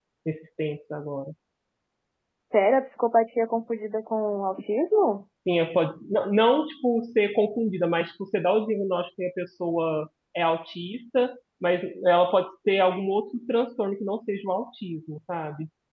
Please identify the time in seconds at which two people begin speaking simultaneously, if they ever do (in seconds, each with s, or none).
none